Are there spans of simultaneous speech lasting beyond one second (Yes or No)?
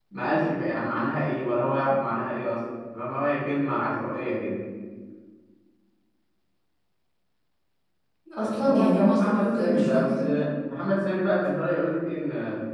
Yes